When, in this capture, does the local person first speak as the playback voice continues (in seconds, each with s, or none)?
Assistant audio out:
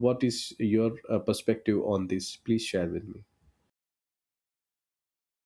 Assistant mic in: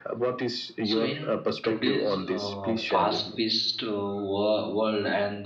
0.8 s